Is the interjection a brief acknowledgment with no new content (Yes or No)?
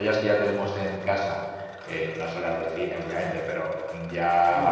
Yes